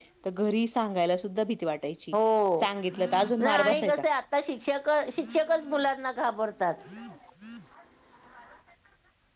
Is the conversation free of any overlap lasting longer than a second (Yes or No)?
No